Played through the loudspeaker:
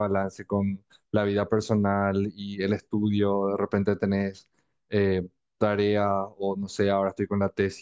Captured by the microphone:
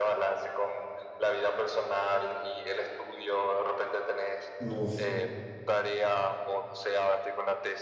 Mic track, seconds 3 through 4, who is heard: echo only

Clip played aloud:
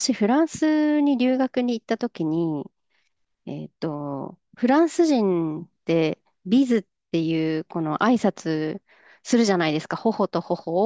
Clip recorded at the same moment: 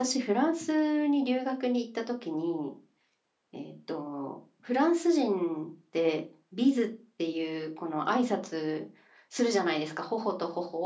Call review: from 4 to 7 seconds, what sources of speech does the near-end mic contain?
echo only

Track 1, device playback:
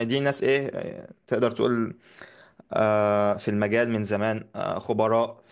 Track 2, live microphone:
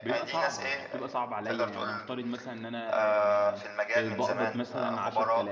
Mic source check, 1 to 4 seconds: both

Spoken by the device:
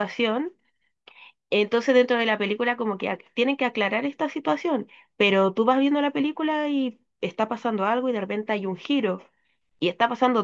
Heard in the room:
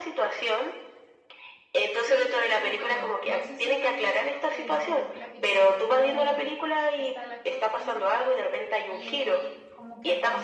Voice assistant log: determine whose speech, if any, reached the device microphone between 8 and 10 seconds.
both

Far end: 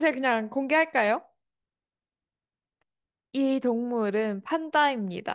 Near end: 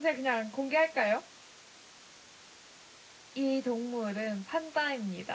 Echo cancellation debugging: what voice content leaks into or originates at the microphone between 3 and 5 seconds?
echo only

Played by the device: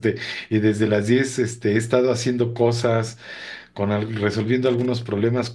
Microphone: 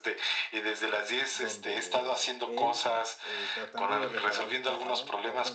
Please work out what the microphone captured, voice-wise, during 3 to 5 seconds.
both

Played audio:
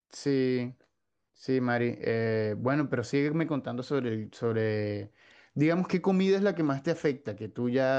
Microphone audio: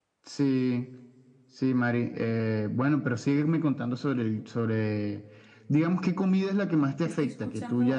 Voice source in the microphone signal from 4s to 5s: echo only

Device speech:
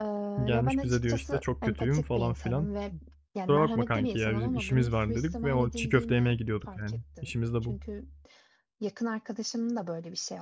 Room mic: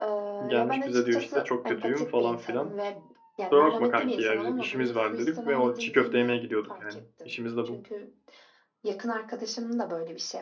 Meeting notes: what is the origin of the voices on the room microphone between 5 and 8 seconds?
echo only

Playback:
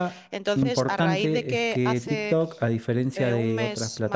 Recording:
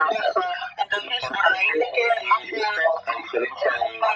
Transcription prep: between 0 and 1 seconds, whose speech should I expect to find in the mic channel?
echo only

